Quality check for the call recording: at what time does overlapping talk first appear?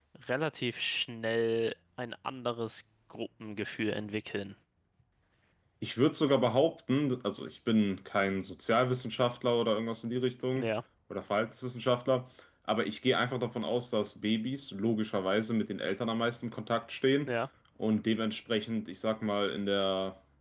none

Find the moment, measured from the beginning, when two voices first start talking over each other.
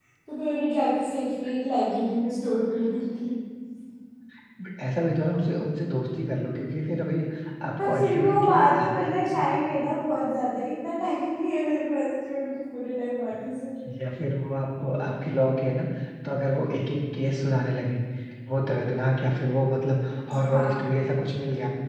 7.8 s

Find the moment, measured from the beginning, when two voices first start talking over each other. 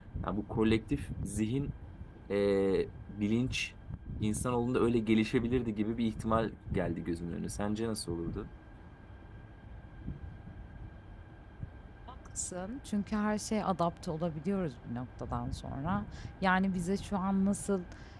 none

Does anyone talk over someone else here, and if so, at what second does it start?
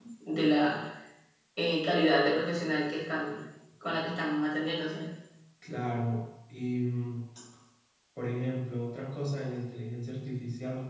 none

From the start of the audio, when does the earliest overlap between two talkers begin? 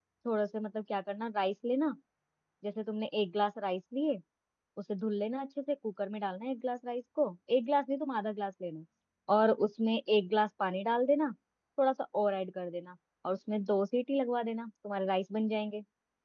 none

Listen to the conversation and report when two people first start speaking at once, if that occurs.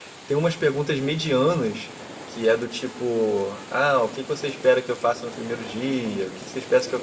none

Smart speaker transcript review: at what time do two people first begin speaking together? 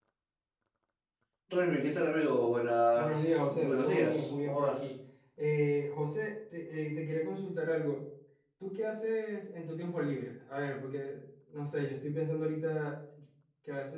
3.0 s

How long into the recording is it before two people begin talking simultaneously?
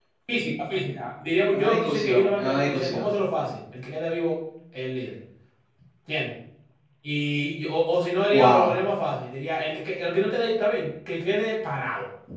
1.5 s

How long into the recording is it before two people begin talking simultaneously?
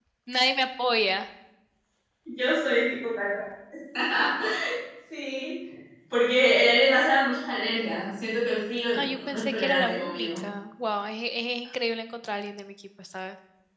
8.9 s

